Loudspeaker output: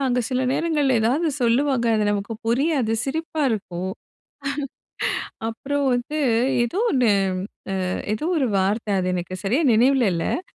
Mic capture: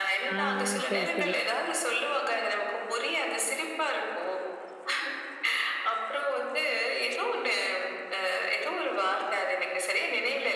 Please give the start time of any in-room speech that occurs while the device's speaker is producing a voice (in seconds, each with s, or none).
0.3 s